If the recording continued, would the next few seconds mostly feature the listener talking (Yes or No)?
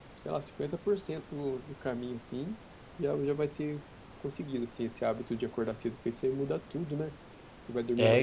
No